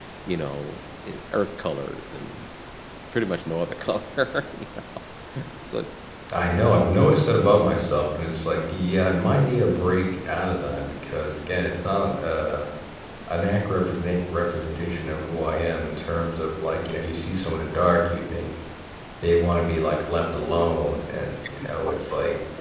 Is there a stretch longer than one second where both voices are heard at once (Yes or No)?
No